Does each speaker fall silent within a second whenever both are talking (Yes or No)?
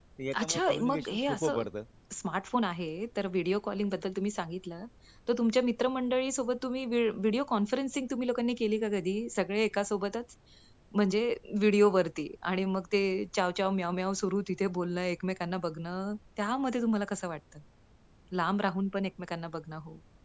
No